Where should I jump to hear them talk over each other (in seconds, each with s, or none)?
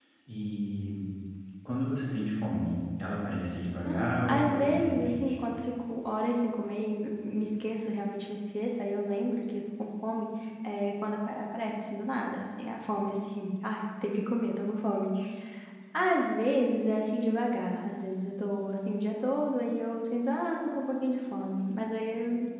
3.8 s